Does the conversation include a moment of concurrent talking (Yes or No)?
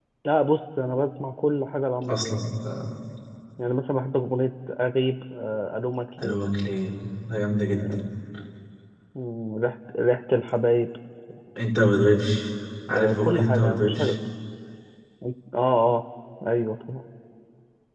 Yes